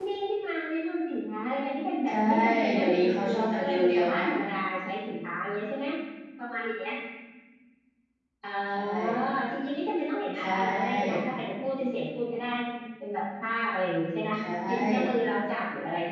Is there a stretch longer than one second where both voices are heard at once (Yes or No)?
Yes